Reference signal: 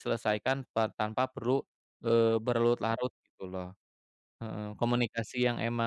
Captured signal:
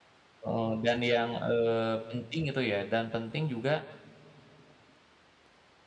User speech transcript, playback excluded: eee, dan yang, eee, penting itu ya, dan penting juga

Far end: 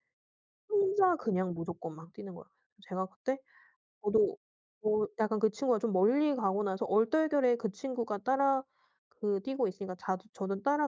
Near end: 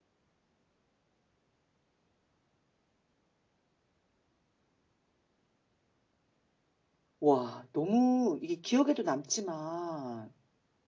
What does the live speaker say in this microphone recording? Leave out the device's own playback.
와. 너무 이게 기억에도 남지만

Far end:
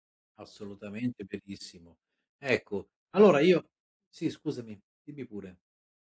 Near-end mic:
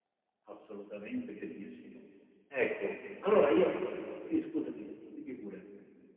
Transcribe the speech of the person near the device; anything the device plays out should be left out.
none

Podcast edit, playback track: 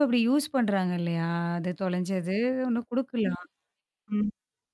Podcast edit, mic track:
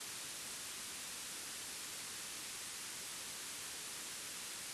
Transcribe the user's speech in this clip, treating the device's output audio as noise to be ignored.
none

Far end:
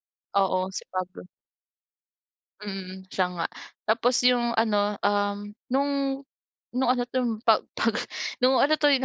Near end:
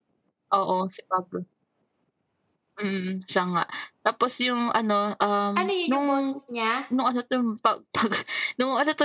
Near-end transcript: Ano yun, yung boses niya?

